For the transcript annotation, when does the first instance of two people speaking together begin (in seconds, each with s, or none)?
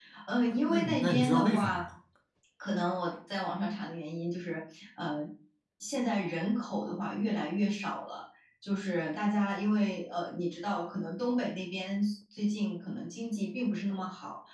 0.6 s